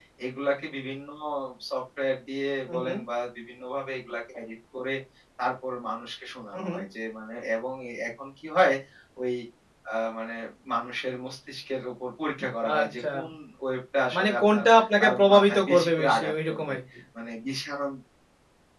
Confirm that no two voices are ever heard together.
No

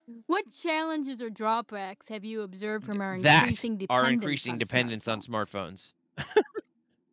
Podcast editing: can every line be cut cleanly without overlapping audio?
No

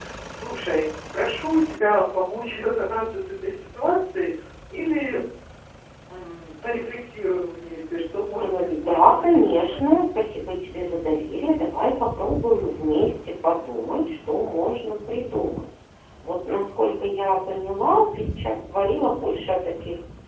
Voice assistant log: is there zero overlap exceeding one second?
No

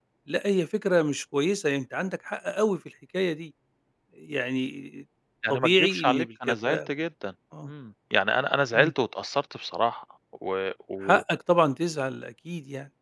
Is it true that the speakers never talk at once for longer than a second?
No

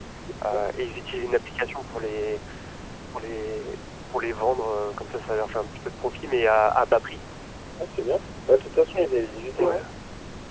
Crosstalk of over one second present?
No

